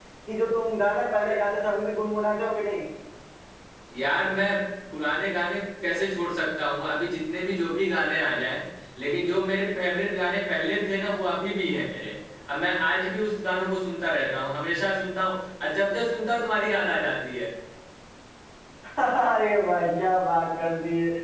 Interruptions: none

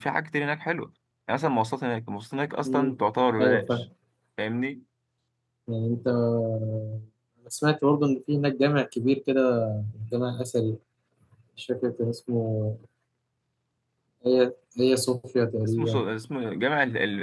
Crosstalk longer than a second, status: none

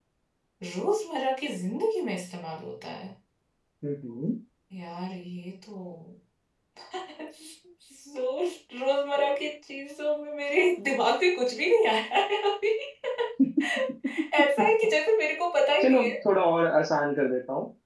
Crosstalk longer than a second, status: none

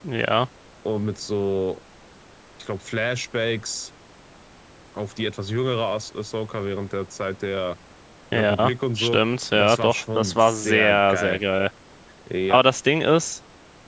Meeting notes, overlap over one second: present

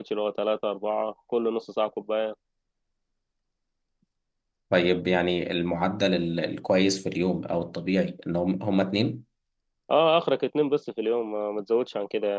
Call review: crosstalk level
none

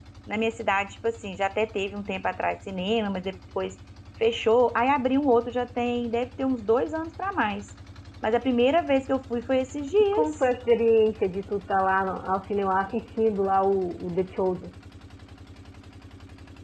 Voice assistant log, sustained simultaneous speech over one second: none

